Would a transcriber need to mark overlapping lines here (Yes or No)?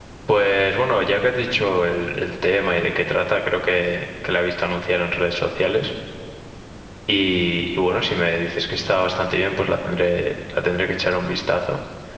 No